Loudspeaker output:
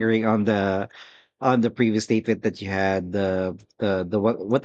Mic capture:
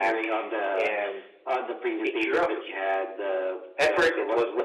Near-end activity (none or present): present